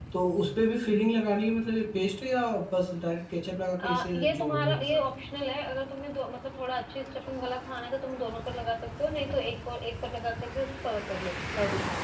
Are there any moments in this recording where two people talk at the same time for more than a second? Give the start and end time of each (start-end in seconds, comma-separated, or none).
3.8-5.0